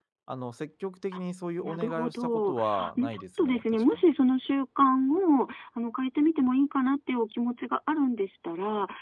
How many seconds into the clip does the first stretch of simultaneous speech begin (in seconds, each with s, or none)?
1.6 s